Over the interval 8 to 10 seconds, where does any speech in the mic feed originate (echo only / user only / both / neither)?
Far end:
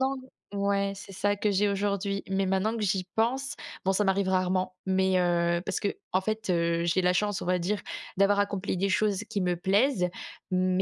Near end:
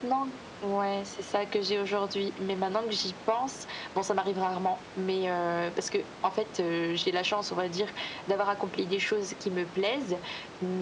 echo only